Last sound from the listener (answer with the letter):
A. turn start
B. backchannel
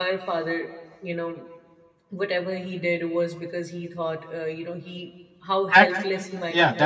A